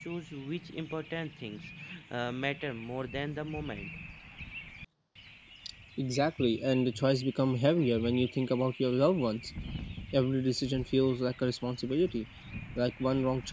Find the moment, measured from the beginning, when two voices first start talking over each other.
none

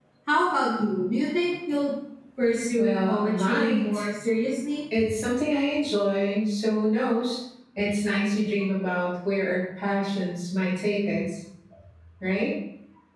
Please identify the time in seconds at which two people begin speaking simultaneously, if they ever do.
3 s

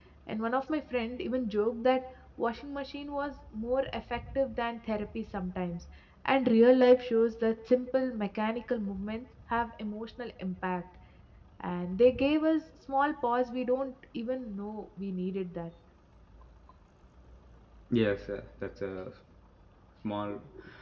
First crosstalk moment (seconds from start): none

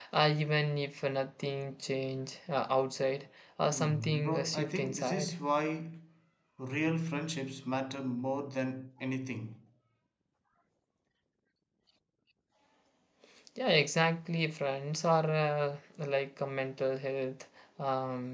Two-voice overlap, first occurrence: 4 s

